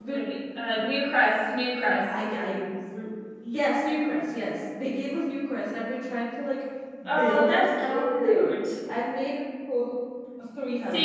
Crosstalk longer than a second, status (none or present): present